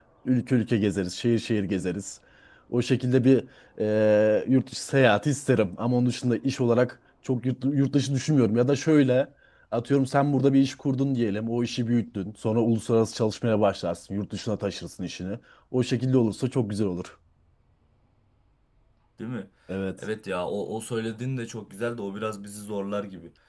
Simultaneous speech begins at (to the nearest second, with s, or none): none